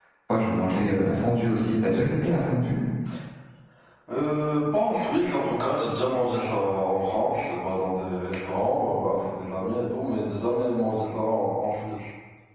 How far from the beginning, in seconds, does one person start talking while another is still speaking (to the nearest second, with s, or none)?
none